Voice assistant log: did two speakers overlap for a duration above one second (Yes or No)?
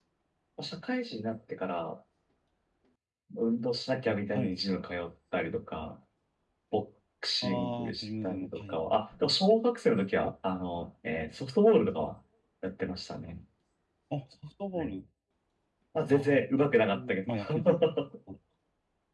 Yes